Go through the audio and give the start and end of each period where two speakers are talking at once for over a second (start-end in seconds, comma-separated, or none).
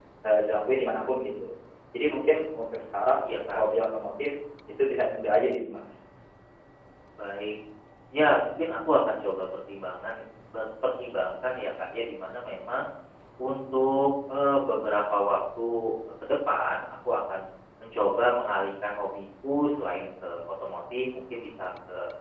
none